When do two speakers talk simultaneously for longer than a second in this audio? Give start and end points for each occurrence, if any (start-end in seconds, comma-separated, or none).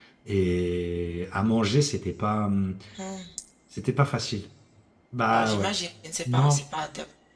none